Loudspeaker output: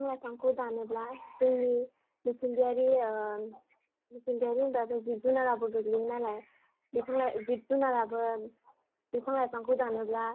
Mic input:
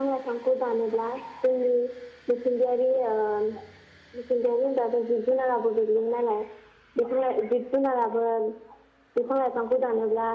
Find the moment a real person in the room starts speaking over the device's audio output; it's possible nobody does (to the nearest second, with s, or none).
none